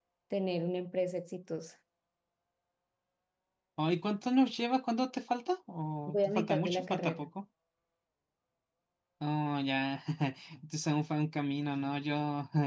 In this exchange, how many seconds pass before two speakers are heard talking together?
6.1 s

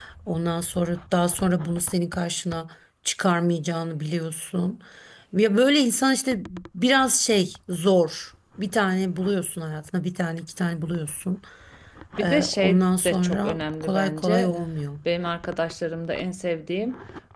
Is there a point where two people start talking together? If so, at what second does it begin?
12.2 s

